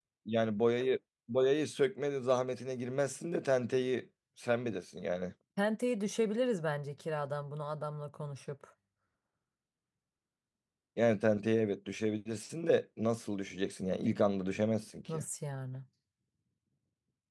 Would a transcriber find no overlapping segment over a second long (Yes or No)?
Yes